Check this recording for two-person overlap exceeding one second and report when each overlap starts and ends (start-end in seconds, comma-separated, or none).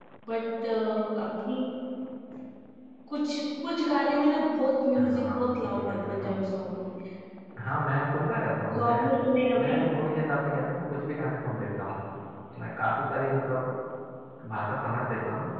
5.0-6.3